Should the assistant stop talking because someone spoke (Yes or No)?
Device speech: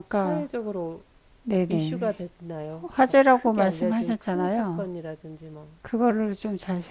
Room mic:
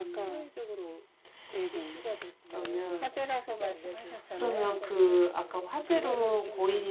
Yes